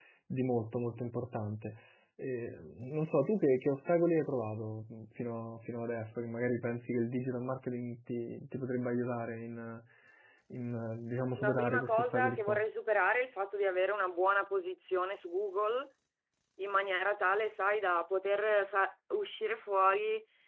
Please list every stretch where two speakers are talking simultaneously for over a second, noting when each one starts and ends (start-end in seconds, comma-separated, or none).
11.4-12.6